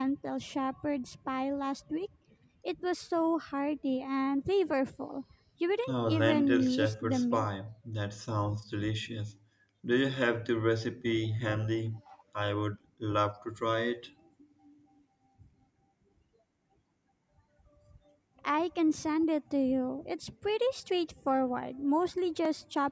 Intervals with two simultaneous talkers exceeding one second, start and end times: 5.9-7.5

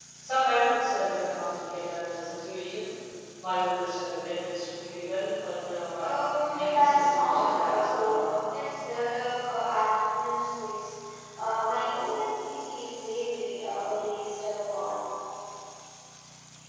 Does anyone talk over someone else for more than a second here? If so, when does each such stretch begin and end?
6.5-8.1

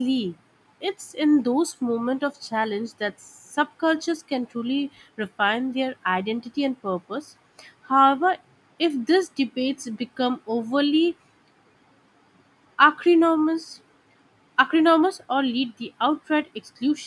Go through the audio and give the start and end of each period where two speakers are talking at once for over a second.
none

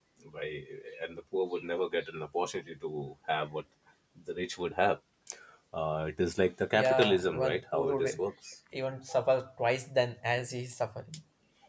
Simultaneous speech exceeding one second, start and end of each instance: 6.7-8.2

